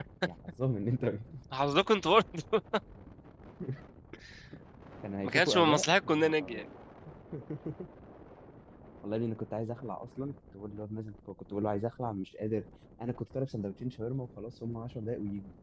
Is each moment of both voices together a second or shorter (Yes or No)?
No